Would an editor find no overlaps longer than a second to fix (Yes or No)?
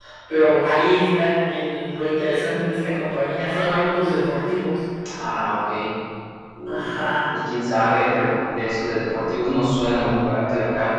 Yes